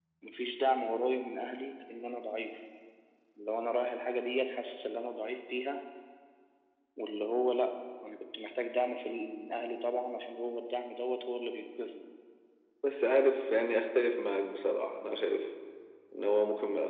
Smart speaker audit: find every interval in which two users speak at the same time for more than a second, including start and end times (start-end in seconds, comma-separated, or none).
none